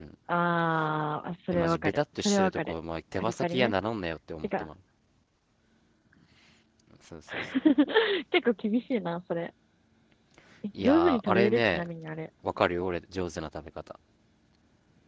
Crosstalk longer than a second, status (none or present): present